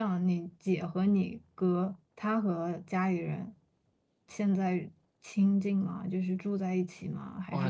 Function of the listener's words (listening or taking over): taking over